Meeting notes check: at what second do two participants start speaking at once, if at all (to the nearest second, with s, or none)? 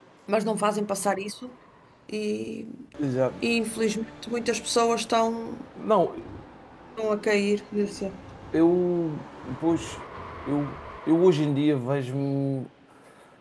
none